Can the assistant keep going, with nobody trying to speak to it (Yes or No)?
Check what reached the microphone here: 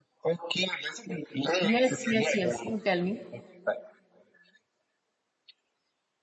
No